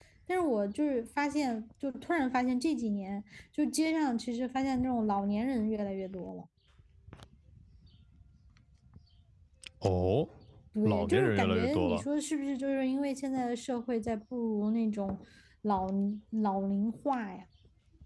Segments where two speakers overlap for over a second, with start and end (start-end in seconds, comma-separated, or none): 10.8-12.1